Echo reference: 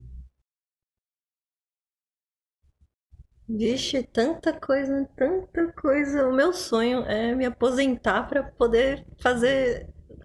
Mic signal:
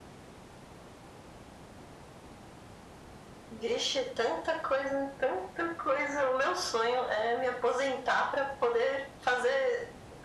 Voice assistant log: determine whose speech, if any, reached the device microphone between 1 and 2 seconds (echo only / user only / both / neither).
neither